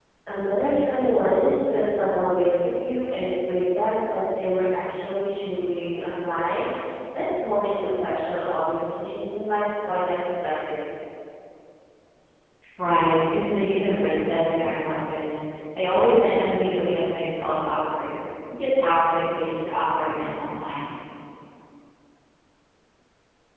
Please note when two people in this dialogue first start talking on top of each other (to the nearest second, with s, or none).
none